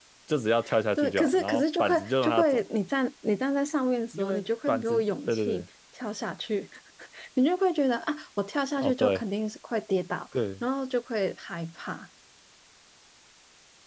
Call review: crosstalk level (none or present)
present